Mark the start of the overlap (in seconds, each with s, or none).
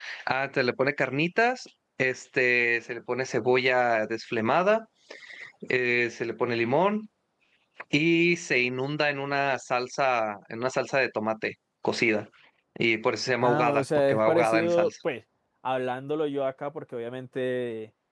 13.4 s